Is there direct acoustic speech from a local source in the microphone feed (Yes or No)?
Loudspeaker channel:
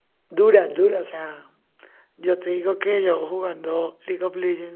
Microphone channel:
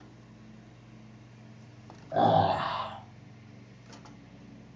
Yes